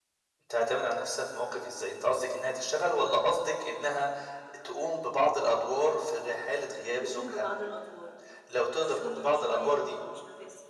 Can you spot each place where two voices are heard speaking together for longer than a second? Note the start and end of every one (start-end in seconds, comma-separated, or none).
8.8-10.0